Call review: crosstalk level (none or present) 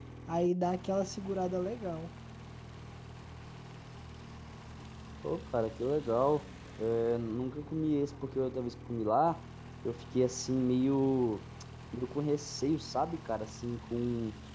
none